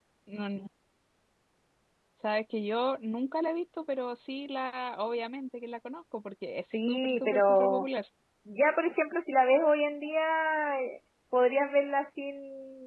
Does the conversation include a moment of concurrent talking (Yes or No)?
Yes